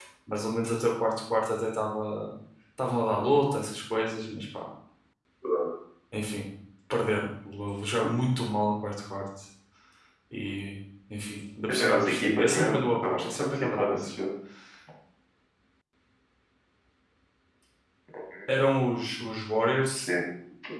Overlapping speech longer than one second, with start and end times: 11.7-14.1

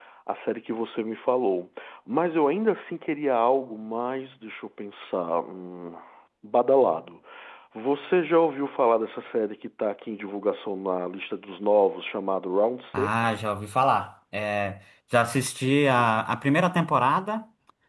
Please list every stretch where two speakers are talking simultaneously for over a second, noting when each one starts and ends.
none

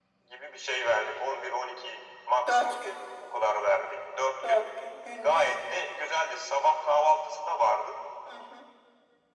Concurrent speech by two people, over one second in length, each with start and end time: none

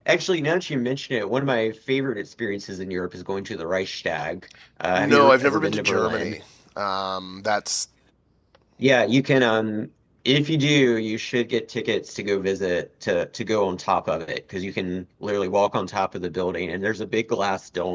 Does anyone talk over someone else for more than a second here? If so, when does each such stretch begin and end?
5.0-6.4

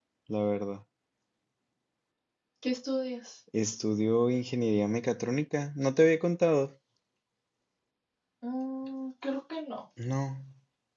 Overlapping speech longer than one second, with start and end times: none

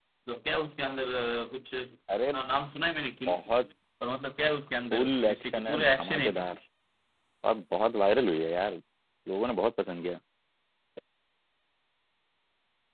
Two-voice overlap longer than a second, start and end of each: 4.9-6.4

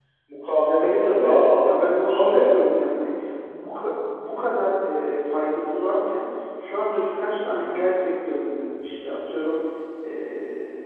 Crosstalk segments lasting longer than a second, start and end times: 0.8-2.8

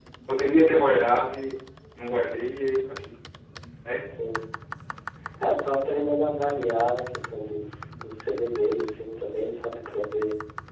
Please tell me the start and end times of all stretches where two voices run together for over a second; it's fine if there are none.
none

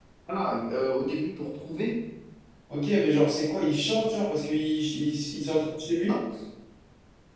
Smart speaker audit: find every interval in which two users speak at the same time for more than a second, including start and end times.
none

